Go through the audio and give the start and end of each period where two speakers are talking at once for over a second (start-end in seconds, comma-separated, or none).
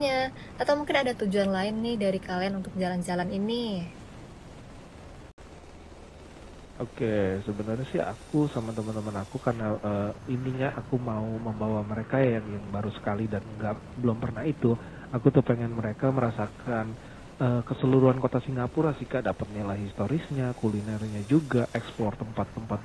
none